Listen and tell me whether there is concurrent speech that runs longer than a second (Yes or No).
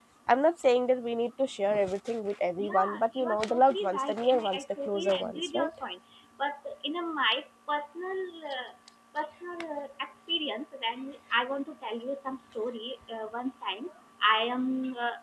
Yes